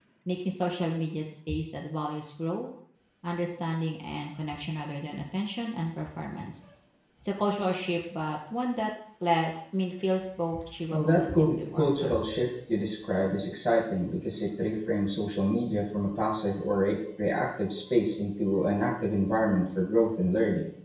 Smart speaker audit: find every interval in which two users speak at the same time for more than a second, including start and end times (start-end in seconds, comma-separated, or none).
10.9-12.3